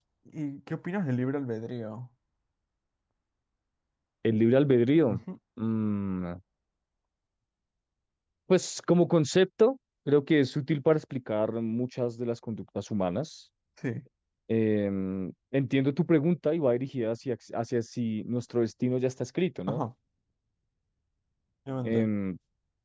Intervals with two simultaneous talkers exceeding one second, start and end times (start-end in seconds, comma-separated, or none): none